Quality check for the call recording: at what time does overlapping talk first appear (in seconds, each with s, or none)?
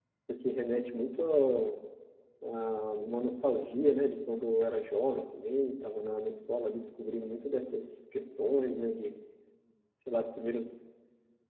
none